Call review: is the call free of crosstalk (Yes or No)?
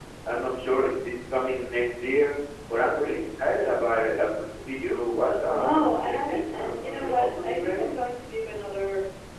No